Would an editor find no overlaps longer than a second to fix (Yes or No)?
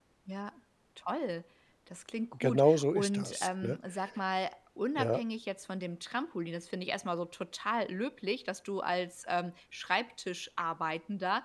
No